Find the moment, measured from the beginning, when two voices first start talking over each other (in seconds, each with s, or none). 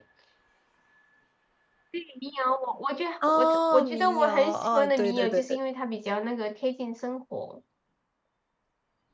3.2 s